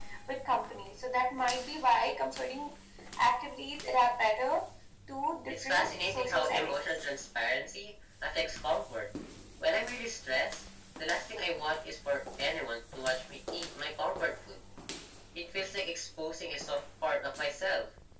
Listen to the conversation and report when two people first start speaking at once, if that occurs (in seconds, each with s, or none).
5.5 s